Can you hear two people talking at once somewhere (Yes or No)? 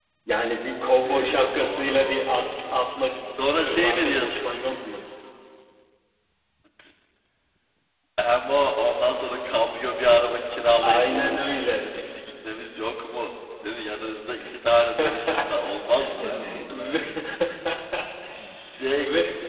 Yes